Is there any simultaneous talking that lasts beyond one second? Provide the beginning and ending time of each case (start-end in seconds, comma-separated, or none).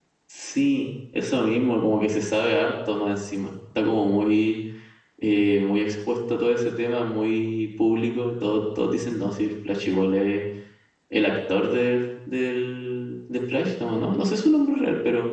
none